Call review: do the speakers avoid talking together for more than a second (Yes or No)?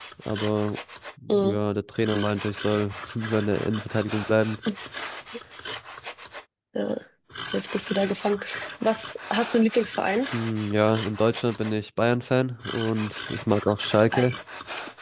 Yes